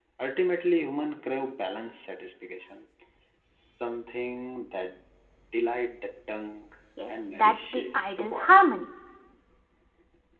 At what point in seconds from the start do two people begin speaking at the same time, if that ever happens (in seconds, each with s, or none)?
7.1 s